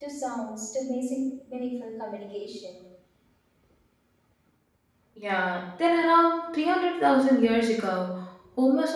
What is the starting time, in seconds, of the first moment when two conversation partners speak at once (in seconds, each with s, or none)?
none